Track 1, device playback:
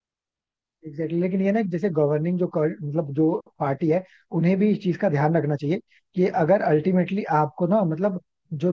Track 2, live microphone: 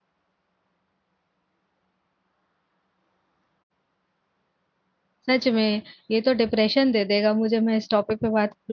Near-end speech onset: 5 s

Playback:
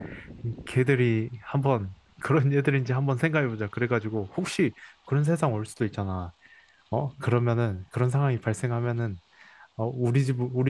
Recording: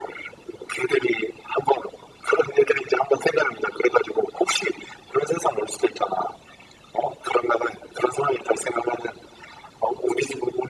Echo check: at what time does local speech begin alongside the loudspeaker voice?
none

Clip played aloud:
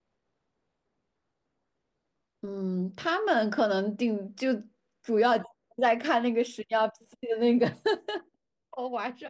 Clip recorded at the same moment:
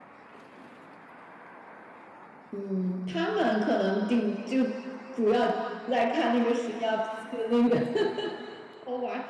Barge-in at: none

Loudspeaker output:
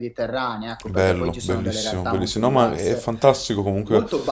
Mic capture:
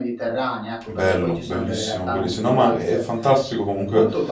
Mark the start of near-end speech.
none

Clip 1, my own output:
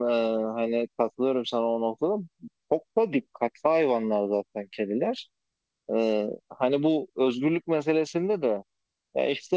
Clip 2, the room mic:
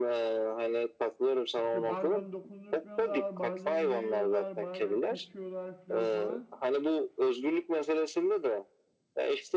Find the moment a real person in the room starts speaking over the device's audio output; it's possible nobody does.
2 s

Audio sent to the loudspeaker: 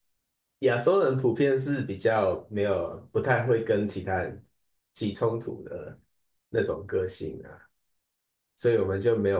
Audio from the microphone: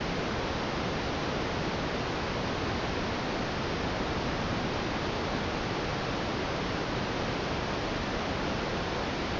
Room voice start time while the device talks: none

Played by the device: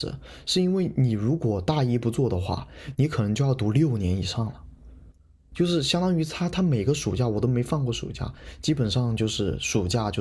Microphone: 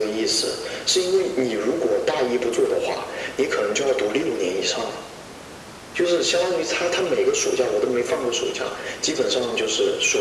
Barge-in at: none

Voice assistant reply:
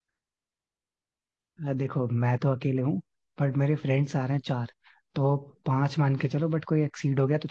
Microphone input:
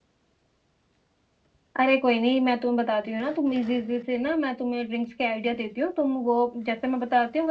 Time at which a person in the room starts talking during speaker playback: 2 s

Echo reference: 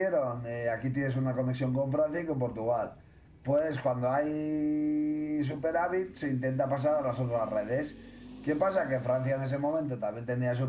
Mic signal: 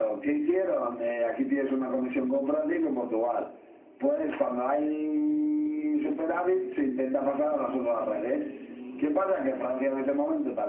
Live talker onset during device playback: none

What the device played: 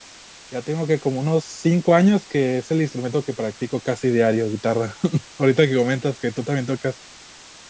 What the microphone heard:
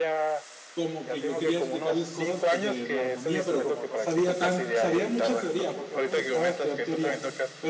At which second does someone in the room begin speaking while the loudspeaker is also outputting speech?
1 s

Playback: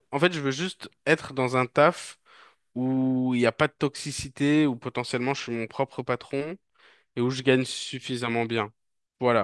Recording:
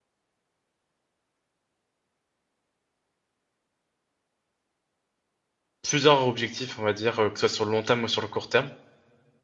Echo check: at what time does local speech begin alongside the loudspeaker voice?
6 s

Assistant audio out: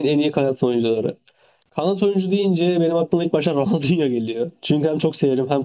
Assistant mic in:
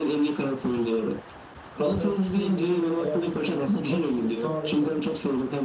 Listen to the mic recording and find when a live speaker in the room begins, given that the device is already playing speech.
2 s

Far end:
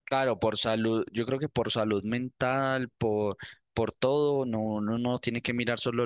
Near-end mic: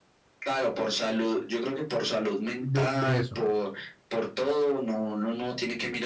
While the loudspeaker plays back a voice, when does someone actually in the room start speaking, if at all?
3 s

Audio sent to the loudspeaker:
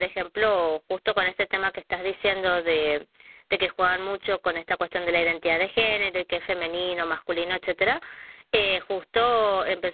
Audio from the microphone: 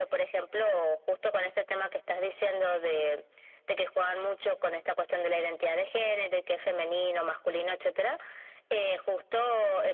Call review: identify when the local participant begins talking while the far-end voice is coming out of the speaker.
none

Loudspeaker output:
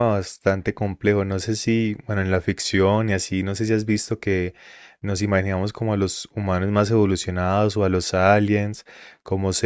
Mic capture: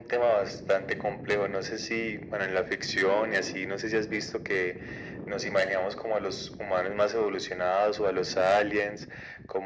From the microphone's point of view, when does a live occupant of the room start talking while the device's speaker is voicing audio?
none

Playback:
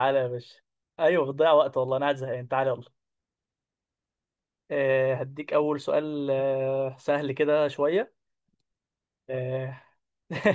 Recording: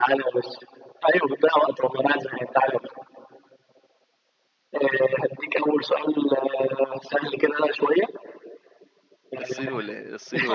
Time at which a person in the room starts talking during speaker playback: 9 s

